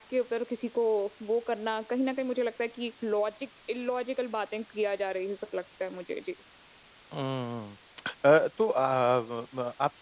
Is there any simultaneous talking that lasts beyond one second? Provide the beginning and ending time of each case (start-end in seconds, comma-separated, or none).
none